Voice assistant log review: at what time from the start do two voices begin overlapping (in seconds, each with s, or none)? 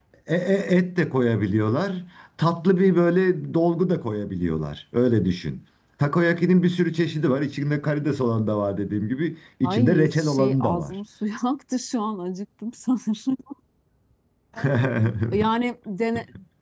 9.6 s